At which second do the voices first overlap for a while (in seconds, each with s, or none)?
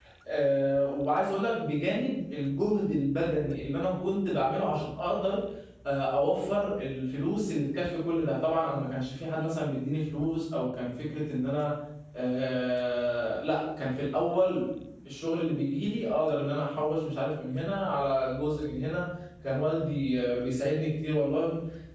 none